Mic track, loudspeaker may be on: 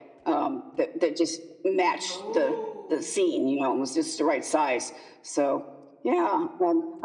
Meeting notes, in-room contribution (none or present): present